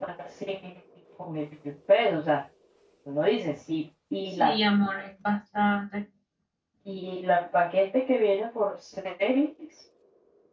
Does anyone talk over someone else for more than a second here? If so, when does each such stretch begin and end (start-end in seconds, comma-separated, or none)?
none